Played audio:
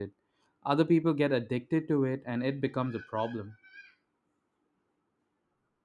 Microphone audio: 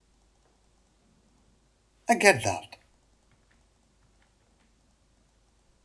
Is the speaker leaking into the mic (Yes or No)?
No